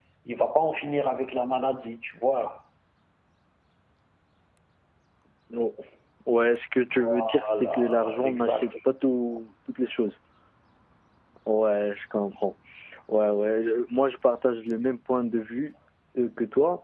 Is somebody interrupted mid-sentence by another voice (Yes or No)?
Yes